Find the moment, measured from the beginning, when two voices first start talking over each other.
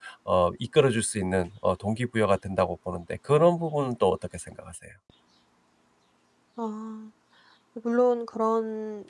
none

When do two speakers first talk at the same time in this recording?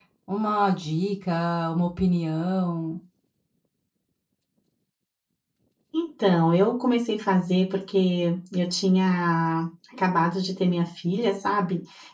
none

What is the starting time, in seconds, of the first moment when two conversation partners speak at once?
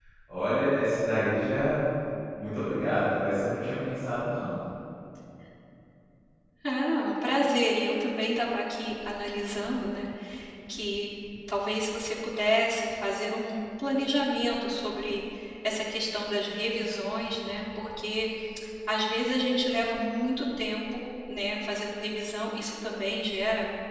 none

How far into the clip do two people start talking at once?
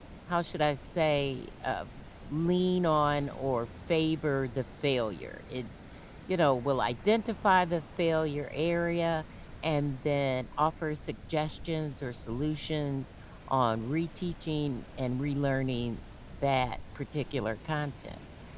none

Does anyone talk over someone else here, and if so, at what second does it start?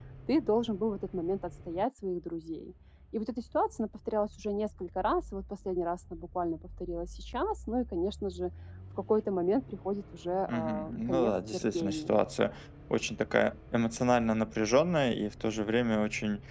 10.5 s

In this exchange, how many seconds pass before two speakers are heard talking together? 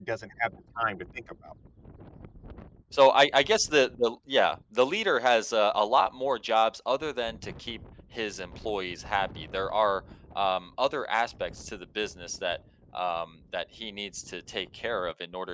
none

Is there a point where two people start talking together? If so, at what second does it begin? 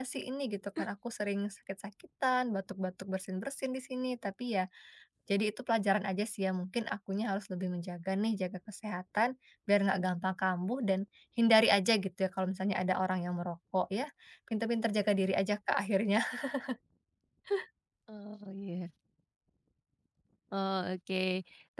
none

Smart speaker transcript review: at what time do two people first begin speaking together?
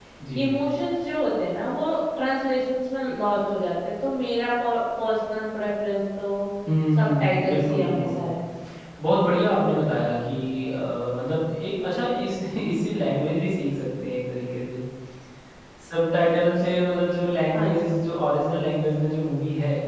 7.0 s

